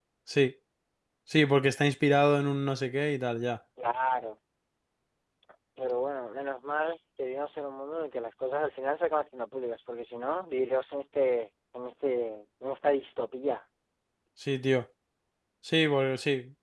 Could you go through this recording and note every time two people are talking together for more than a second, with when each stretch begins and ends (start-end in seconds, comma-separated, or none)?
none